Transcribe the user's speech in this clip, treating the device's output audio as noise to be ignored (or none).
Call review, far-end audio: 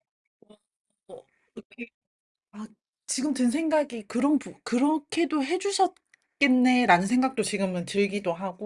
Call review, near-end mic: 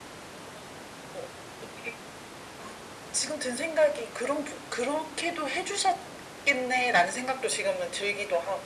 none